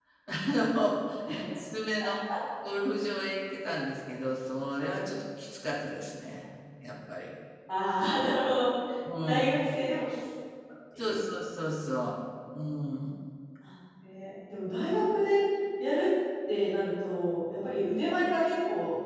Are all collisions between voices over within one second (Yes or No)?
Yes